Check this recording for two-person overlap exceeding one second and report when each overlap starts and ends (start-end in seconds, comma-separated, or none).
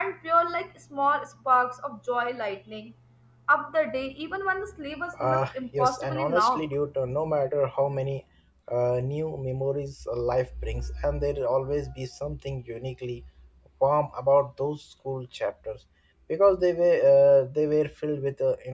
5.2-6.7